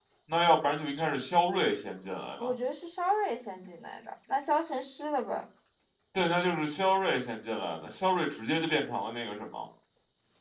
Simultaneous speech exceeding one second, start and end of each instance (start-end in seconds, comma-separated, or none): none